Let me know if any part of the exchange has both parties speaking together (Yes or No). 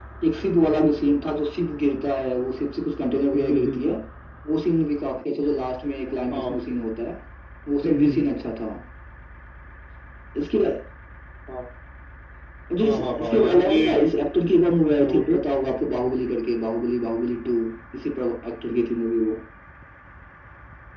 Yes